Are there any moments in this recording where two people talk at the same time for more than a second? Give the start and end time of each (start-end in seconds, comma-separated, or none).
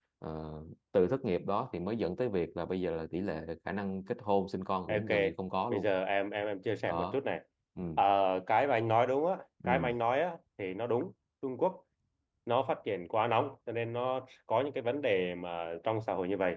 none